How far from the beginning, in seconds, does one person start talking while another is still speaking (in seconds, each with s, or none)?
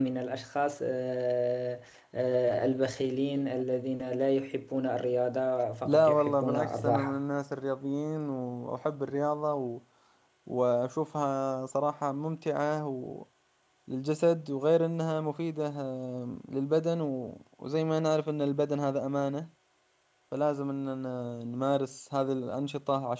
5.8 s